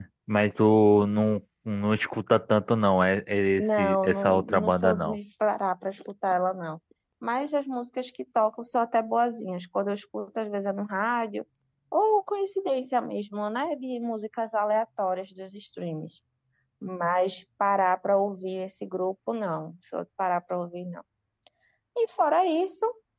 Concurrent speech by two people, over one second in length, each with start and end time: 3.6-5.2

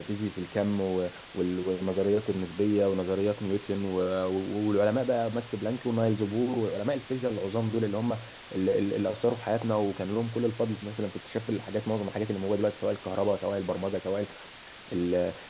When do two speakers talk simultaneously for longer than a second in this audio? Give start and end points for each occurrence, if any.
none

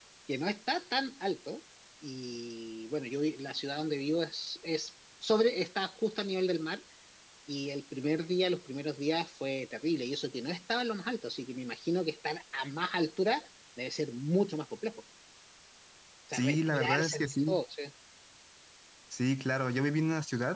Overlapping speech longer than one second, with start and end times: 16.3-17.6

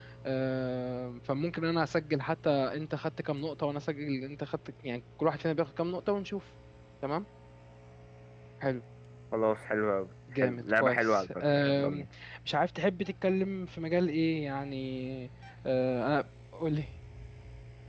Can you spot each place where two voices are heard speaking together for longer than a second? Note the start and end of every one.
10.4-12.1

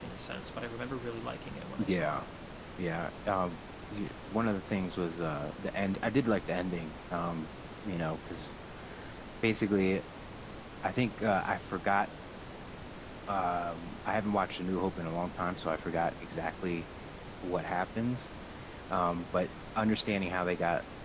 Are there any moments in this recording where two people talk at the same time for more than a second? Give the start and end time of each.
none

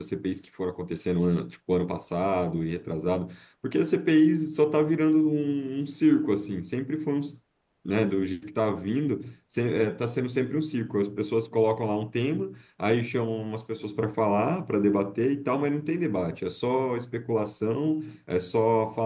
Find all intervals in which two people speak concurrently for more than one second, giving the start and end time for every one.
none

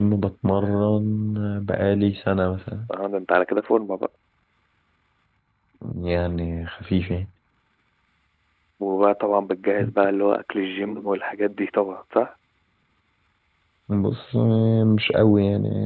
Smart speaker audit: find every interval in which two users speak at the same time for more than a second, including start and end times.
none

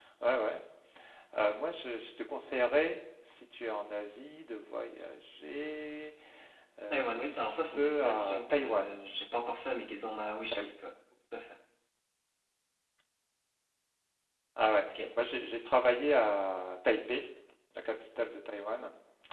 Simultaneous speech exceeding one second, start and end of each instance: 6.9-9.0

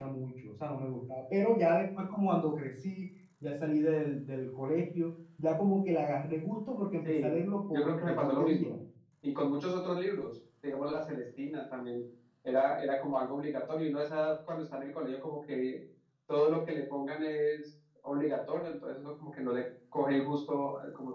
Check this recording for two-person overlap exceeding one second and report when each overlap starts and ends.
7.0-8.8

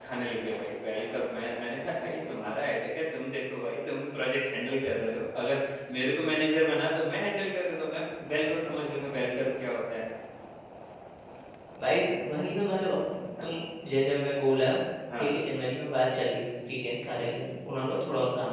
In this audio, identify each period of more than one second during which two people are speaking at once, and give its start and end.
none

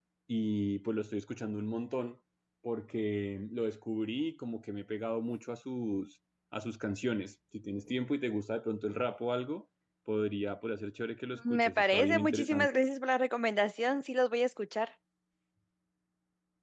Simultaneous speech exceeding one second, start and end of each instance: 11.5-12.8

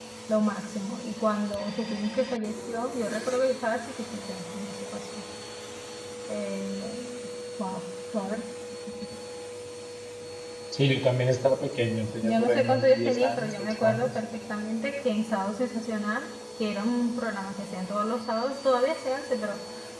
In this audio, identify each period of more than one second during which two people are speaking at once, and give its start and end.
12.2-14.1

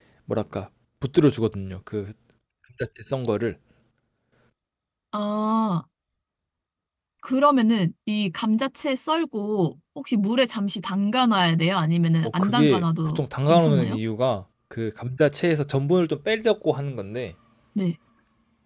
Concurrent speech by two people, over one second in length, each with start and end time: 12.2-14.0

